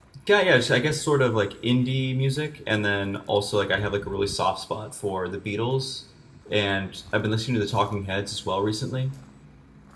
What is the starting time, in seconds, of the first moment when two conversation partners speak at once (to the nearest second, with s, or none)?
none